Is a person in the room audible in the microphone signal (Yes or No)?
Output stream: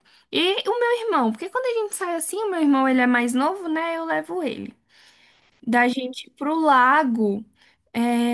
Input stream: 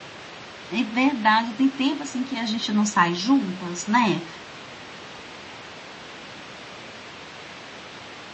Yes